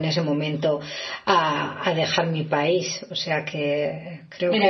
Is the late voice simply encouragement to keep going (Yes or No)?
No